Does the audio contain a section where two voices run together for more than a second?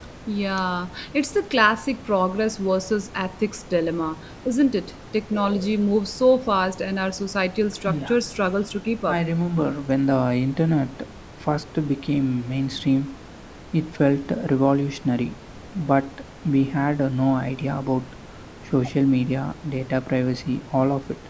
No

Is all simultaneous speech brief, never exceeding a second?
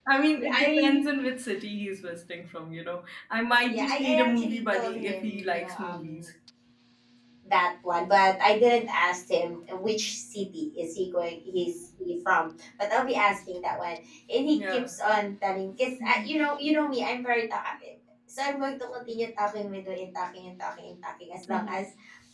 No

